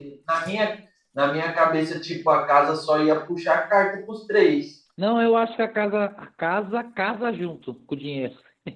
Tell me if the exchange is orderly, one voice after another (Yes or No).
Yes